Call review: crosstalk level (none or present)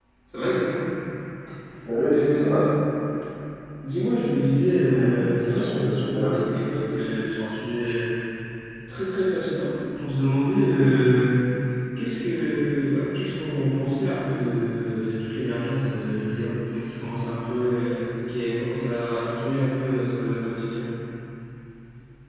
present